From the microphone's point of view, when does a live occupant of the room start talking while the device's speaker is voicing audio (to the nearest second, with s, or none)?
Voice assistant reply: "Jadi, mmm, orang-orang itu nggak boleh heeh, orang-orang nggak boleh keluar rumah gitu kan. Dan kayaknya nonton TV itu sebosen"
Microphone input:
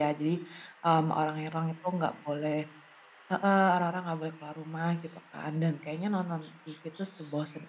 none